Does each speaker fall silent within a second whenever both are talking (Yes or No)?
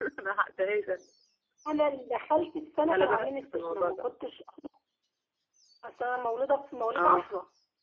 No